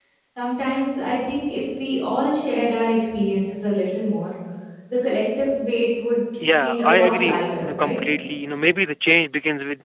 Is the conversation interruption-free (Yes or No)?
No